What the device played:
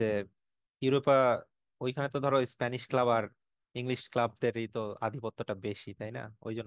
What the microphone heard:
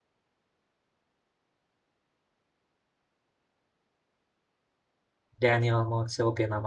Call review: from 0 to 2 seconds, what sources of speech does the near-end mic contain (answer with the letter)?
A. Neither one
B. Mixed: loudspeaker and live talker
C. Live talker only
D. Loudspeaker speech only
A